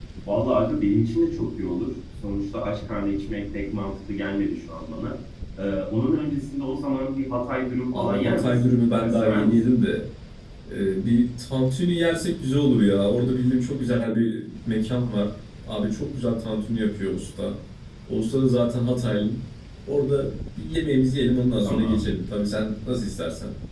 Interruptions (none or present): present